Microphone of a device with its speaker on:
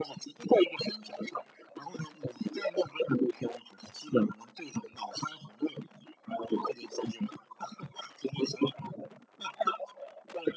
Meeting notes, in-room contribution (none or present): none